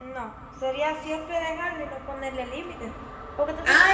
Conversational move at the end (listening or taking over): taking over